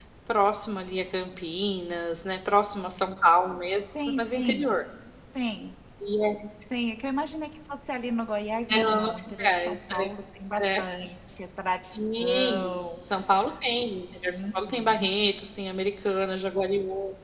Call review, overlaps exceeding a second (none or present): present